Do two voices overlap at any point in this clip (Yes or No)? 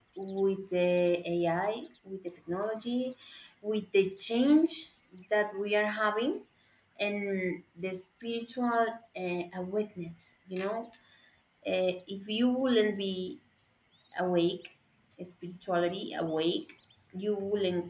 No